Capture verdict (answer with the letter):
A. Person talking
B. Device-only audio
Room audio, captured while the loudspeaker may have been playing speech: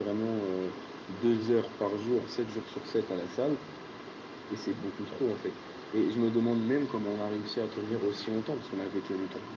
B